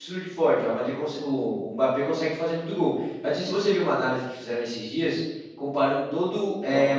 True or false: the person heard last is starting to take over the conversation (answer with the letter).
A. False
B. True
A